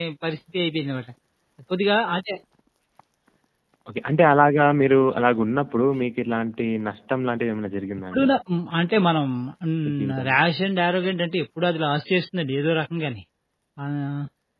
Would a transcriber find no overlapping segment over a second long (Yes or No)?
Yes